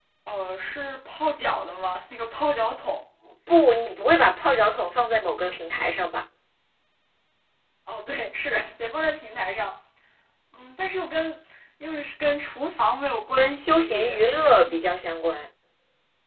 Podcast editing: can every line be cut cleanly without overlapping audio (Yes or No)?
No